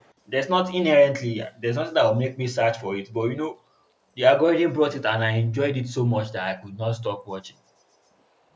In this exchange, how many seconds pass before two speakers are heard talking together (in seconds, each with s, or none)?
none